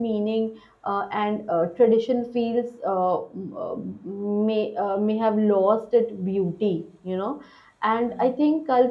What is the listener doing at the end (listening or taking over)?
listening